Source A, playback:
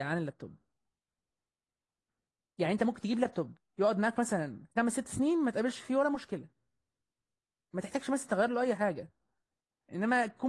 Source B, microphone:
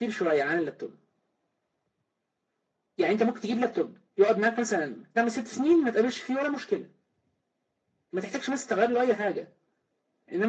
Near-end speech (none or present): none